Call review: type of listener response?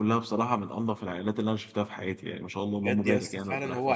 taking over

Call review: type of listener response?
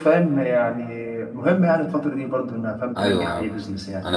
taking over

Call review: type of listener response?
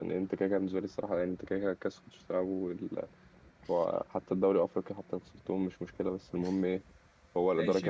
taking over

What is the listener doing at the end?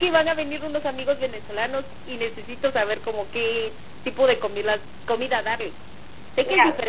listening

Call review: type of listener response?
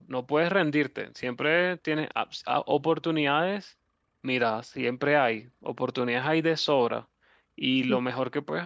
listening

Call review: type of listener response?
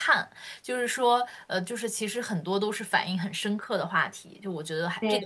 taking over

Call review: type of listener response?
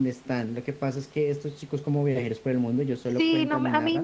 taking over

